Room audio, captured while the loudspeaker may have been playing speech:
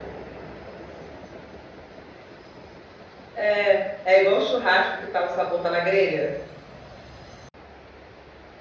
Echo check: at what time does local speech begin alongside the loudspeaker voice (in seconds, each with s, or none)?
3.3 s